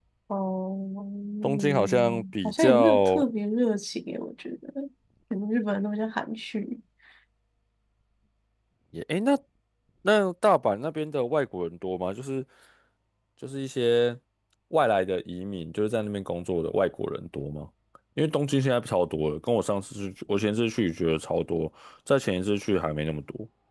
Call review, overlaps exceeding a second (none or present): present